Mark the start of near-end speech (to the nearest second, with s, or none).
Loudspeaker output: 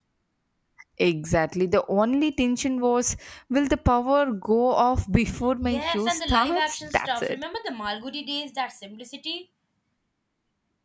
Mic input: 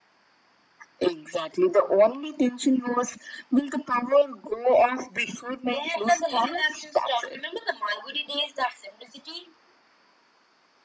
none